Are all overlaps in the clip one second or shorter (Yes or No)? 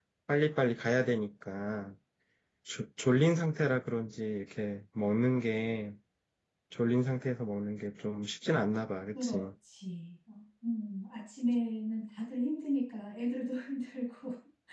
Yes